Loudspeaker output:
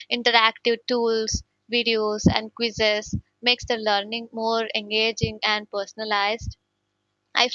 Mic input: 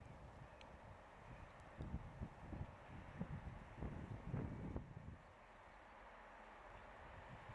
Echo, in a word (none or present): none